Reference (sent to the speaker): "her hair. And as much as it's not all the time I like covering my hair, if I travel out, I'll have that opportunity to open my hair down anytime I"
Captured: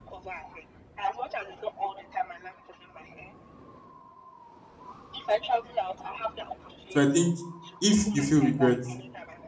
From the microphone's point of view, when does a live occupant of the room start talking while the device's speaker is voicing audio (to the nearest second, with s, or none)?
7 s